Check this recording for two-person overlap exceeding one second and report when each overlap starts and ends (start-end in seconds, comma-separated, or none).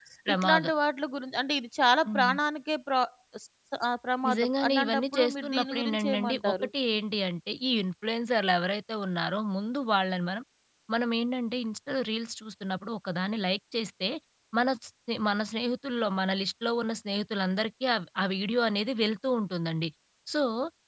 4.3-6.7